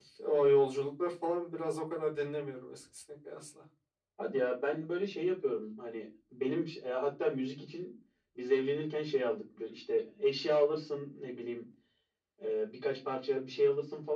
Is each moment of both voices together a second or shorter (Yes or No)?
Yes